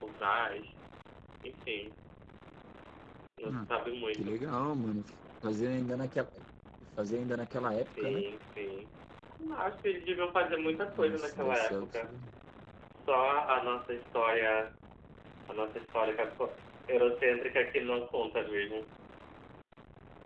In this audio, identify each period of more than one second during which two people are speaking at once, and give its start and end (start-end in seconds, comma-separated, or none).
10.6-12.1